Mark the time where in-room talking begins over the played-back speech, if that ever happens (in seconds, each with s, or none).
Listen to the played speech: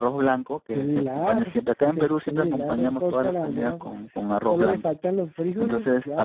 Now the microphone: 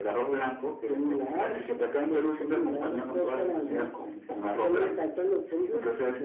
none